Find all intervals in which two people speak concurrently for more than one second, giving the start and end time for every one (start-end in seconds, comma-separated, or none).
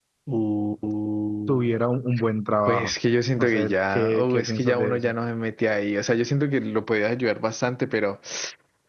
3.4-5.1